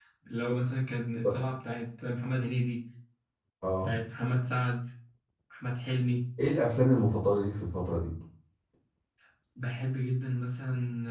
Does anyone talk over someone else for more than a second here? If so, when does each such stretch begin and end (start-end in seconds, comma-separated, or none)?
none